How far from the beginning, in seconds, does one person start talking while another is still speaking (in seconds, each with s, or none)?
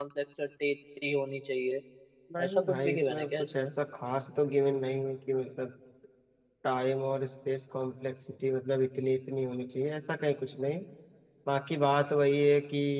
2.4 s